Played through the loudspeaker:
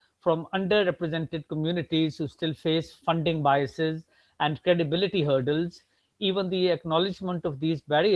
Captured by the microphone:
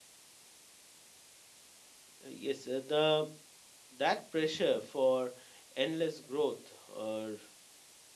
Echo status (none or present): none